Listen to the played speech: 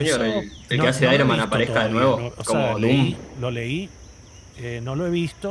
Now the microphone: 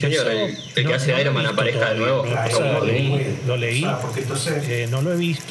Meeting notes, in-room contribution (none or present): present